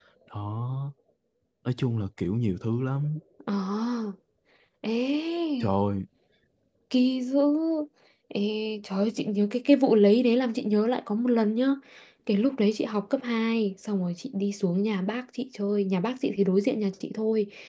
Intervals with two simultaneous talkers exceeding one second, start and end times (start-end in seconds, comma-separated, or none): none